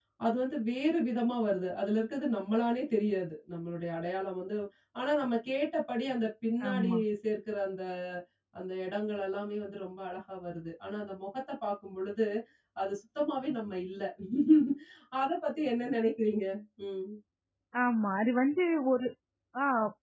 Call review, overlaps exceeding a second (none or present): none